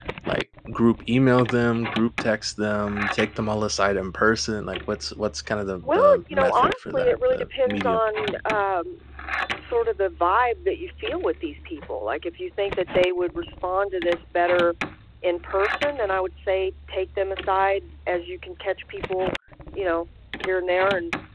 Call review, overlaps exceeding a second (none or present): present